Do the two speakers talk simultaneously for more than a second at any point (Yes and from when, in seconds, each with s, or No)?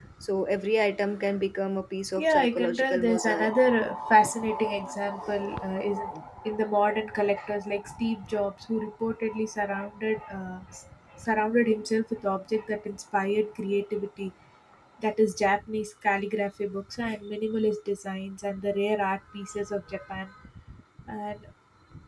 Yes, from 2.2 s